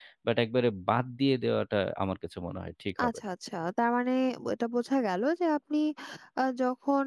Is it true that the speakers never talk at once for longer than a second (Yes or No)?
Yes